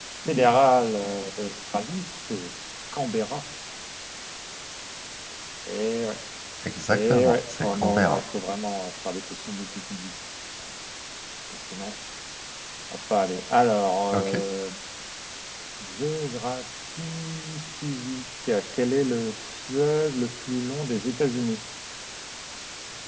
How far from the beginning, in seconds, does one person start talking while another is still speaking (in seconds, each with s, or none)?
6.9 s